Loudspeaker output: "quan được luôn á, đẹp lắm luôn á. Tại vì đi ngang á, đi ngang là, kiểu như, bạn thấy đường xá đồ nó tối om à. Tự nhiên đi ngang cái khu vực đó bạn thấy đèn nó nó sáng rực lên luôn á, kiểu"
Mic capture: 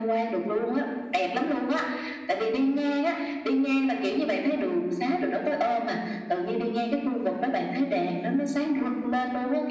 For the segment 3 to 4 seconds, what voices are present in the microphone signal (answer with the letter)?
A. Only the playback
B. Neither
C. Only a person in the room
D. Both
A